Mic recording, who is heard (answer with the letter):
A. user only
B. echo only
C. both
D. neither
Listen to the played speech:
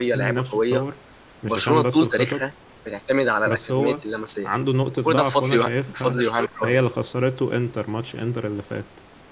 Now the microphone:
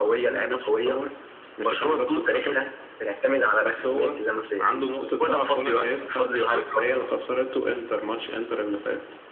B